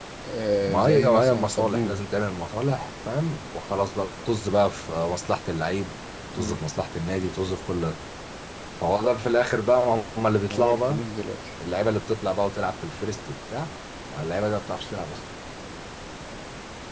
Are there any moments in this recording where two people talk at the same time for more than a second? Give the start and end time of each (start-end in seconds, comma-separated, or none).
0.7-2.0